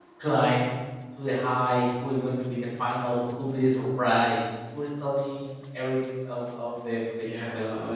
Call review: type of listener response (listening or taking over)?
taking over